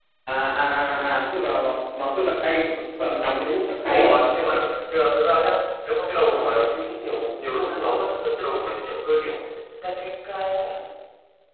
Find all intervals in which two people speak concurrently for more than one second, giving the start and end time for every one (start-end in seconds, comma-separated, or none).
none